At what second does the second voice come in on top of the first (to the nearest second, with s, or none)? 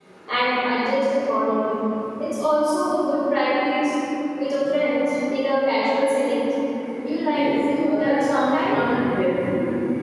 7 s